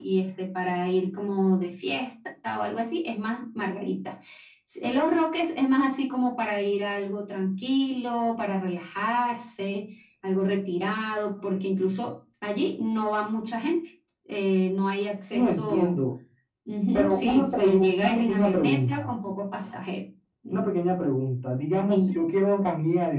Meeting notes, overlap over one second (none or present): present